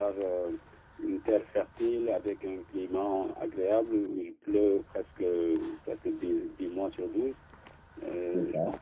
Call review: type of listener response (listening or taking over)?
listening